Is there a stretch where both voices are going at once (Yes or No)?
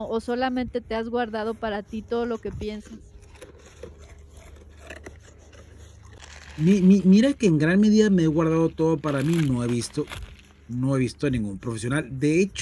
No